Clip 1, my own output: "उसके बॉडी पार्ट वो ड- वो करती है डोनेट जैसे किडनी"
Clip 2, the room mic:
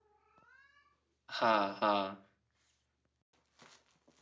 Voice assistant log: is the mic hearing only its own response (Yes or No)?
No